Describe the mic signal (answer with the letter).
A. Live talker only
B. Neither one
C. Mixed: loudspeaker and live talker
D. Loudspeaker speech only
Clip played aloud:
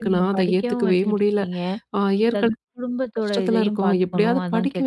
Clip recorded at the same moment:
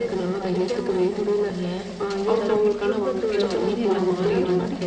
C